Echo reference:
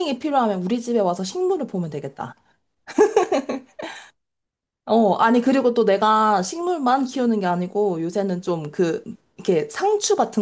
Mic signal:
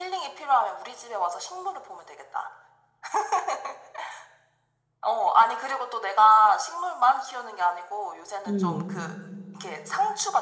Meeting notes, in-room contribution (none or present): present